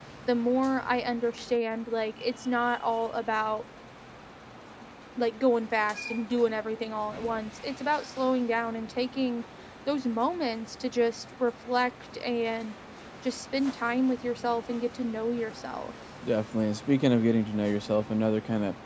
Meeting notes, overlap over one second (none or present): none